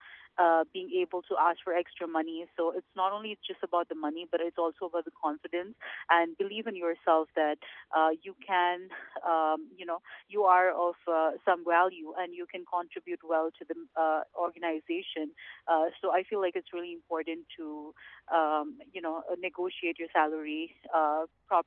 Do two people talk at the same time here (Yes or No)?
No